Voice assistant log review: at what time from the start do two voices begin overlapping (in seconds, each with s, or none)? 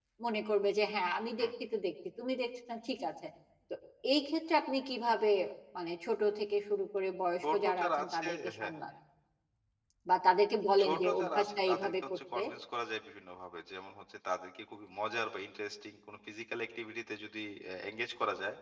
7.4 s